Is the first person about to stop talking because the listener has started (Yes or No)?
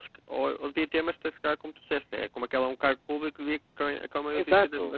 Yes